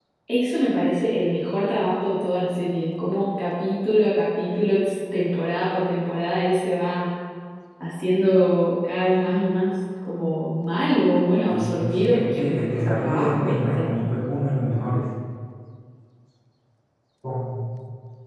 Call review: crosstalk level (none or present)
present